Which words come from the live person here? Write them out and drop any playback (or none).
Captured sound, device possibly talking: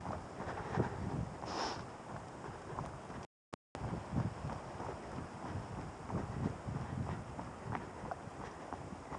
none